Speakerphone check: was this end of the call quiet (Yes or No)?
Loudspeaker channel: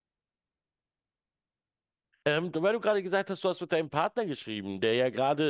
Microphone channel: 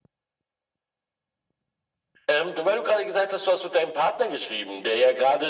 Yes